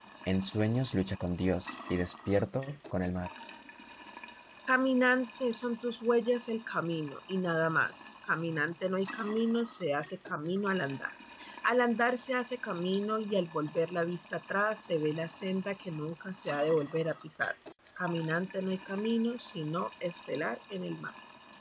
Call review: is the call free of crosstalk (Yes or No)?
Yes